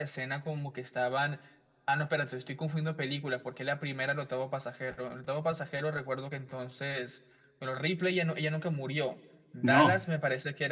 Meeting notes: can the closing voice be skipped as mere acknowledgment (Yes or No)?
Yes